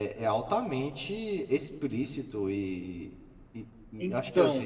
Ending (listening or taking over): listening